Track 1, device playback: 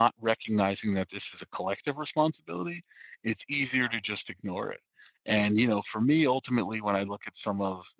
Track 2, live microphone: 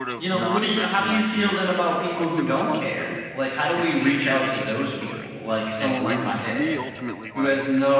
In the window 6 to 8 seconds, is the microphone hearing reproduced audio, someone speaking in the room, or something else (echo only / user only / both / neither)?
both